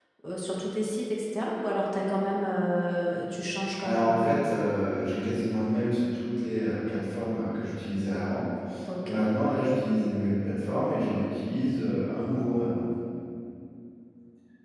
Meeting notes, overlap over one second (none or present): none